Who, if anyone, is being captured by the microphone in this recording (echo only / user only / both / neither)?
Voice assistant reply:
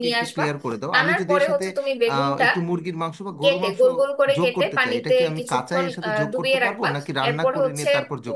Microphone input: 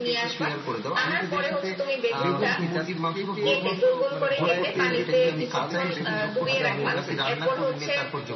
both